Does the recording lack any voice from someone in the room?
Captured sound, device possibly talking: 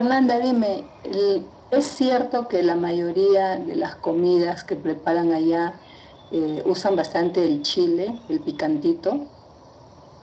Yes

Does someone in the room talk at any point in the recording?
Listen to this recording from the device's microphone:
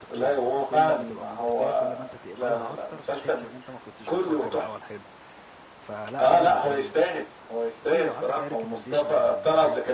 Yes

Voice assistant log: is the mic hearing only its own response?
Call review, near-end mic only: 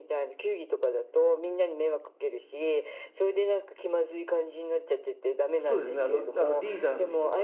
No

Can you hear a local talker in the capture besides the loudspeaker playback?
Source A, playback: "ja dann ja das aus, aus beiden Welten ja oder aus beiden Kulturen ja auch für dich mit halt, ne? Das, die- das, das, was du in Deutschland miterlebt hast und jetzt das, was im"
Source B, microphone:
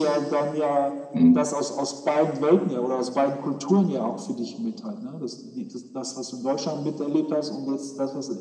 Yes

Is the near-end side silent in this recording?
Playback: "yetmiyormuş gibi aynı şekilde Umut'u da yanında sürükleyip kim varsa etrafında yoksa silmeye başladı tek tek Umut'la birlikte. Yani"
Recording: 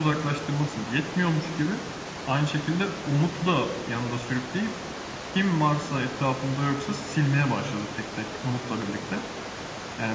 Yes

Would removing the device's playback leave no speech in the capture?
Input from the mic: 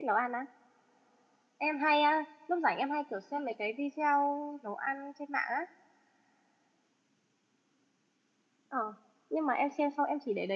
No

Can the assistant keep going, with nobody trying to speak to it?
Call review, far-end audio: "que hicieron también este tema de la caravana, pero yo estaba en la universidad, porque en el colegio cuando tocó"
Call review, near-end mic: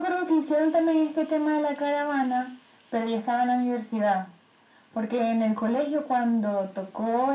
Yes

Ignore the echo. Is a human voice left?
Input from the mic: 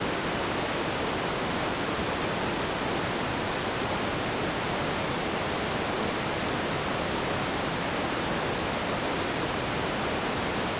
No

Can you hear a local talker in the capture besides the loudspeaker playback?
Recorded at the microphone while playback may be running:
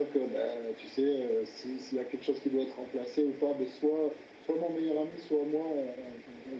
No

